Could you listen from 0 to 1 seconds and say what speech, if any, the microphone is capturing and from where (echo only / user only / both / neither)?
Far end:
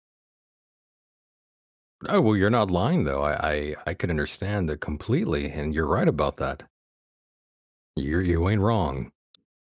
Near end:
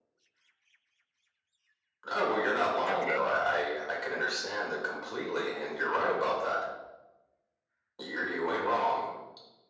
neither